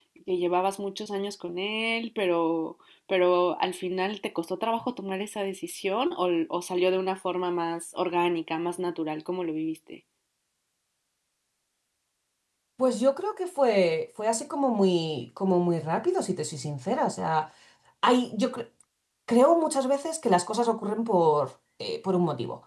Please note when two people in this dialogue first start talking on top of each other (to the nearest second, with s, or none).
none